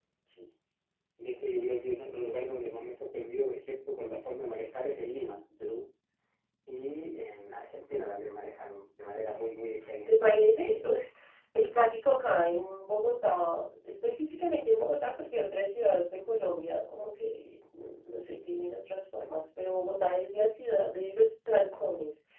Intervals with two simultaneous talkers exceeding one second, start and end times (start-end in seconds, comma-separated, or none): none